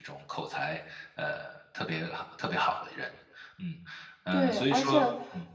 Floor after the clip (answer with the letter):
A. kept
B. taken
B